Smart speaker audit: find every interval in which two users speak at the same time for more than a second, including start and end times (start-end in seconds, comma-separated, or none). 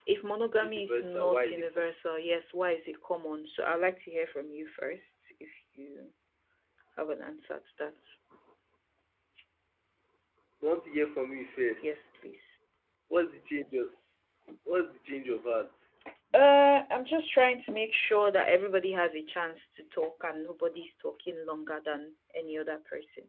0.6-1.9